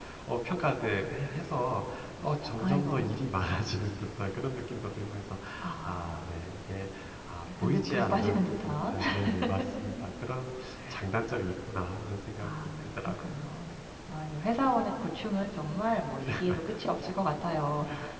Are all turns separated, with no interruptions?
No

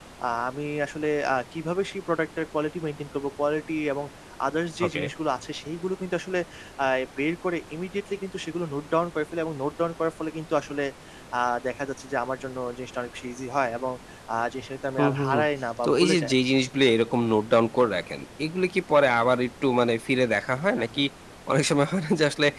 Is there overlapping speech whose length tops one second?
No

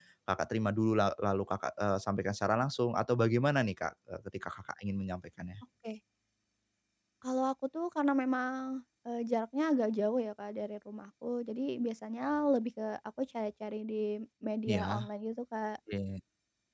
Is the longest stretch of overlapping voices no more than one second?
Yes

